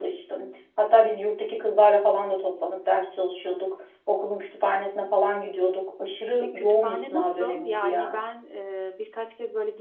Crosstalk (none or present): present